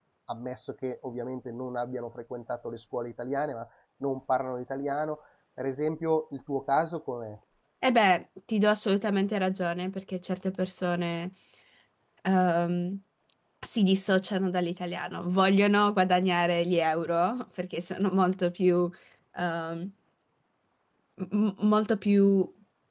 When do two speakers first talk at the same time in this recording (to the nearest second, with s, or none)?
none